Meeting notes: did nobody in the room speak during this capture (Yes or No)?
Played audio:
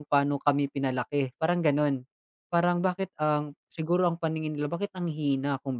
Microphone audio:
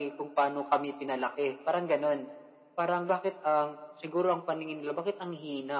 Yes